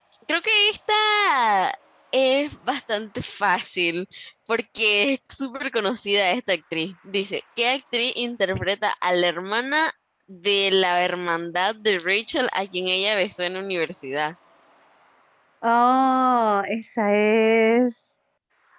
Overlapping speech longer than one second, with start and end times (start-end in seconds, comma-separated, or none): none